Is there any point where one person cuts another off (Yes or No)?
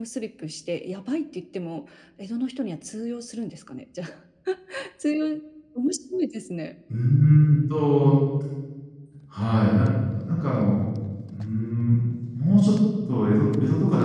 No